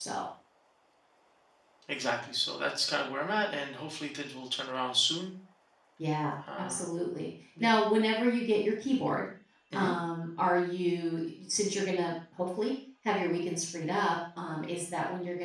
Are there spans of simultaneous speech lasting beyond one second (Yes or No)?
No